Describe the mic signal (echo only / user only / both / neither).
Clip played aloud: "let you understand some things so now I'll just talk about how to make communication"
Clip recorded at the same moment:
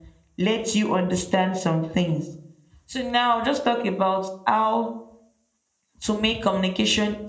echo only